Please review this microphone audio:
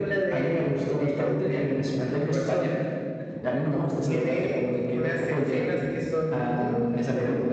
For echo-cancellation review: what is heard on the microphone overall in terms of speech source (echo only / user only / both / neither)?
echo only